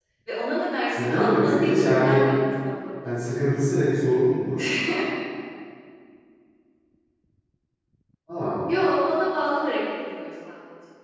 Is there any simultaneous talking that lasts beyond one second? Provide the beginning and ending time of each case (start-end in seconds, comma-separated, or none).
1.0-2.3